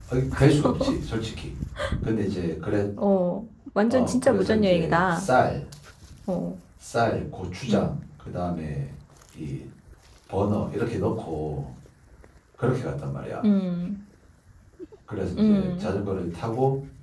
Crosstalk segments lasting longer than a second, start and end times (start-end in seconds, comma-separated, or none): 3.9-5.3